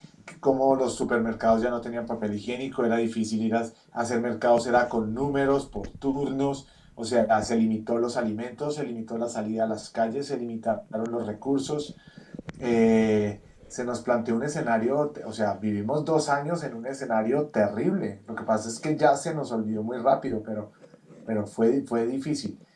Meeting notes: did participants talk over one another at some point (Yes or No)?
No